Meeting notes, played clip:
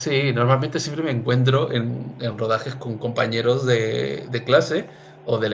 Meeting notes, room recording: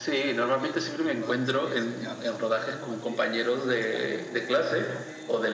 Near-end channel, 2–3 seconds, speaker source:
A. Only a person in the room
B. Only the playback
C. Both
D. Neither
C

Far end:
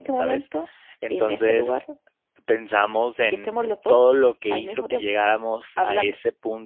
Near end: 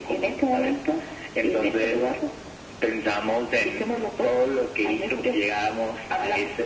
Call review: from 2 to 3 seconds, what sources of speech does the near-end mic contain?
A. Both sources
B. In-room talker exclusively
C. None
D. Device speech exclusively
D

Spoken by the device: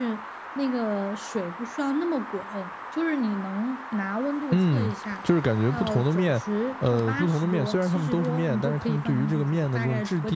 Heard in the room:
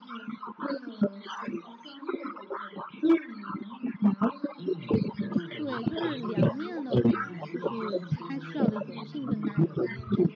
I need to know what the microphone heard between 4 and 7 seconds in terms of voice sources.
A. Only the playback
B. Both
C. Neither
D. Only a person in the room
B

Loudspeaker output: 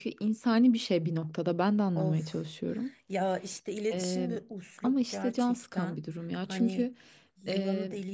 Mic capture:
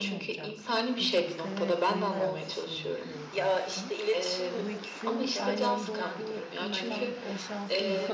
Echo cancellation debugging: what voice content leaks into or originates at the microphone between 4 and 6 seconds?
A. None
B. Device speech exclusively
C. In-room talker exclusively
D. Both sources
D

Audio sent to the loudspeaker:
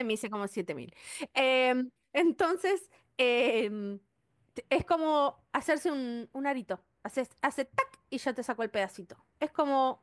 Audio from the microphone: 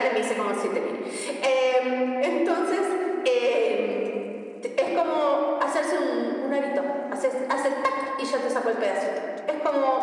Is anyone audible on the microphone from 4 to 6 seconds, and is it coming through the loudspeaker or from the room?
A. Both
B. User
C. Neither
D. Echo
D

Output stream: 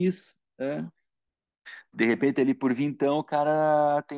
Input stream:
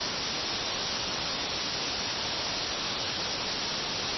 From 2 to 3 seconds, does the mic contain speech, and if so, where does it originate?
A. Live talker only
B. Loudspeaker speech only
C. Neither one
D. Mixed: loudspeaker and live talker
C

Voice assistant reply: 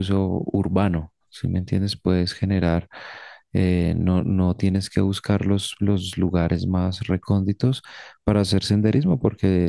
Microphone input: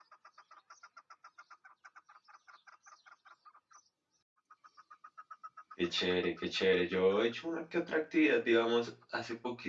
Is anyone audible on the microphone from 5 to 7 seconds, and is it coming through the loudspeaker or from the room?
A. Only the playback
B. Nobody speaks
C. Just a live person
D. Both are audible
C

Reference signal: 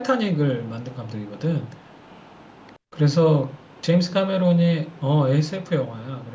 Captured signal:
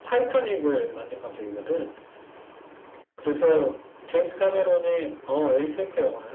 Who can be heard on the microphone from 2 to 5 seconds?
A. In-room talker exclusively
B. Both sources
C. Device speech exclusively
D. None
C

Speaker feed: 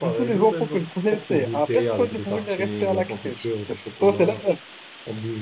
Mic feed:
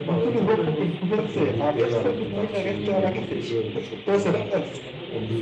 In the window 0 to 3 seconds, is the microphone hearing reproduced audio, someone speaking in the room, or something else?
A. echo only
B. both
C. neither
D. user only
B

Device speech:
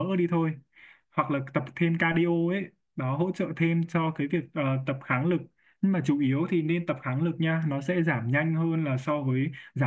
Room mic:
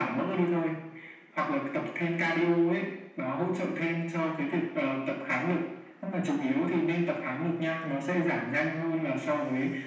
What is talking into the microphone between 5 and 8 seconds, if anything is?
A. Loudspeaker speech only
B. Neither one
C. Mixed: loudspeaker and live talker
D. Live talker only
A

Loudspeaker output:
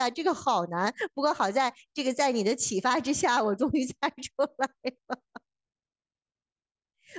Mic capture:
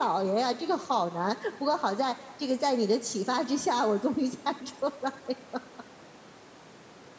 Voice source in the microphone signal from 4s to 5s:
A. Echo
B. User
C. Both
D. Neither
A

